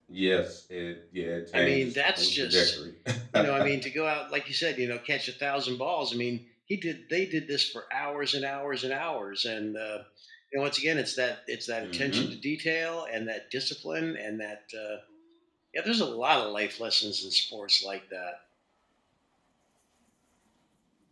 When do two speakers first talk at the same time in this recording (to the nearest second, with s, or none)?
2 s